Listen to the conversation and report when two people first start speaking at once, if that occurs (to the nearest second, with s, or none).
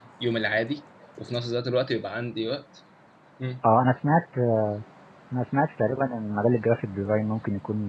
none